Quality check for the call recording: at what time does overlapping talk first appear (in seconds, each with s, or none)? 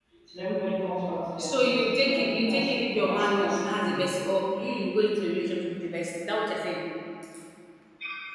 1.4 s